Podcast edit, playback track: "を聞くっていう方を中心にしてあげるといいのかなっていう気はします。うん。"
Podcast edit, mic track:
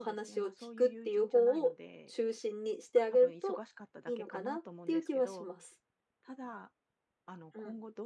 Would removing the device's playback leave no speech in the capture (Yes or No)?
No